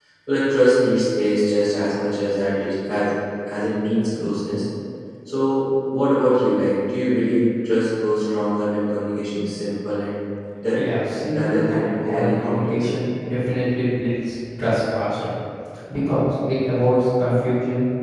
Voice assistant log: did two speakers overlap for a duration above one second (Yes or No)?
Yes